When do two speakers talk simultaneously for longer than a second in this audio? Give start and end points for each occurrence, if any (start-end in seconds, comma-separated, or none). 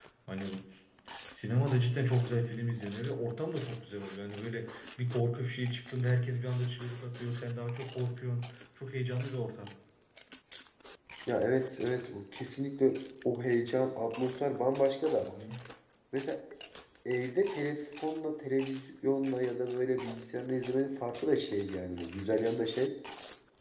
none